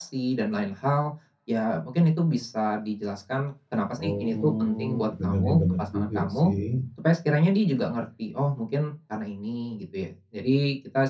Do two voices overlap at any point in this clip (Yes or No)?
Yes